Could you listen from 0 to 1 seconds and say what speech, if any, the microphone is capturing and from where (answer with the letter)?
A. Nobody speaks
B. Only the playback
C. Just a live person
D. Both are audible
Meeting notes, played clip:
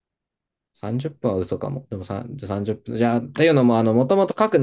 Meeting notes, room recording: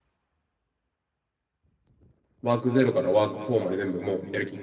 A